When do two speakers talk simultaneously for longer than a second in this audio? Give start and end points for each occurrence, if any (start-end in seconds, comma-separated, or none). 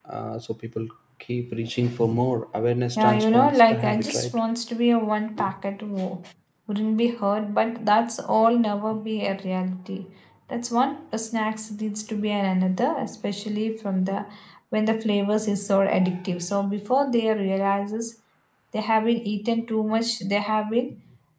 3.0-4.4